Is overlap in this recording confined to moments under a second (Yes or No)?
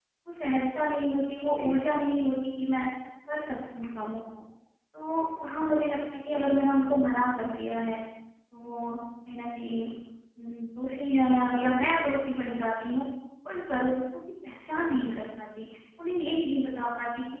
Yes